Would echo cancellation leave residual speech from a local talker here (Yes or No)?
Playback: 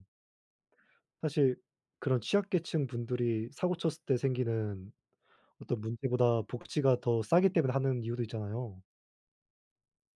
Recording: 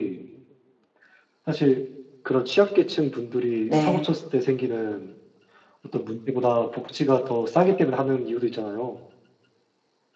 Yes